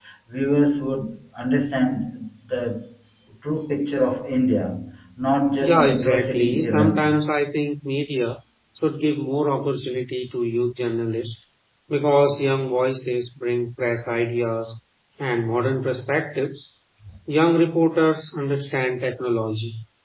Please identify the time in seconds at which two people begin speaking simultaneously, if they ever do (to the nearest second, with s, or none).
6 s